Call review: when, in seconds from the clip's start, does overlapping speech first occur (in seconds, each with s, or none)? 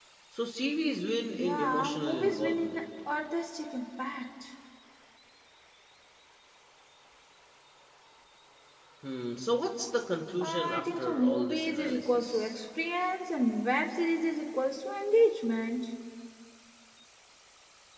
1.4 s